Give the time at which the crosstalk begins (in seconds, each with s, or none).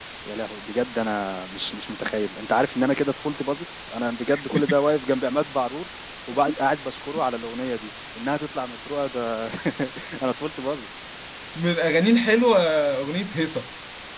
none